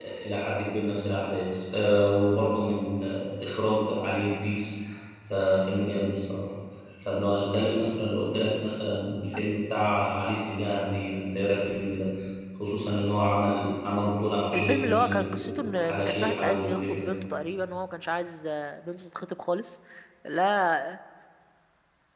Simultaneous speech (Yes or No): Yes